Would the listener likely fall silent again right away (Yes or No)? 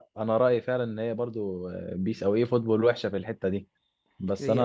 Yes